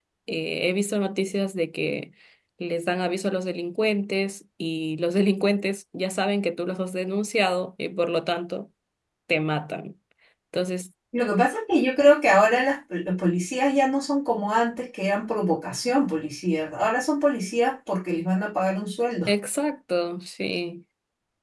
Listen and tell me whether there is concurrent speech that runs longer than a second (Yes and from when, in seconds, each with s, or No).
No